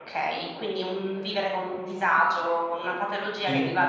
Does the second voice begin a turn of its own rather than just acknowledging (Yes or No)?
No